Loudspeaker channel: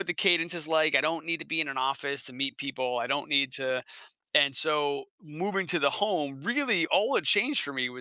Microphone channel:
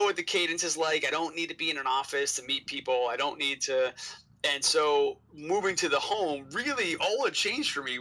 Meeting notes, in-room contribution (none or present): none